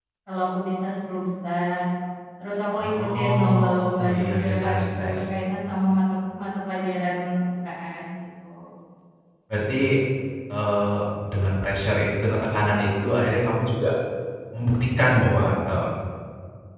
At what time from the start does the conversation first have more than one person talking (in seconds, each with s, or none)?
2.8 s